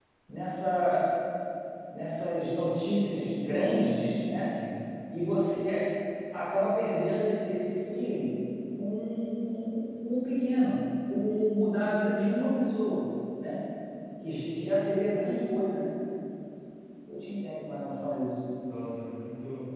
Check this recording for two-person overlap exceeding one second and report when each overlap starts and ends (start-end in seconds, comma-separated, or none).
none